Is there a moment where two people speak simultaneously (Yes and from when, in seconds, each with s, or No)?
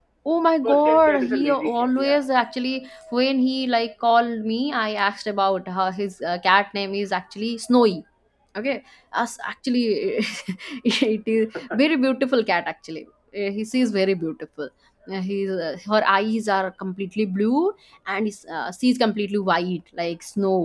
Yes, from 0.6 s